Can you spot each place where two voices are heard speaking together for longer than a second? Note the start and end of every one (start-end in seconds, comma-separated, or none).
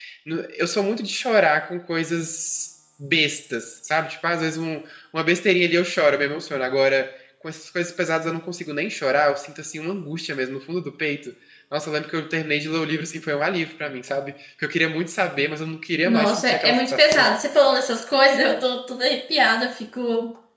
16.1-17.3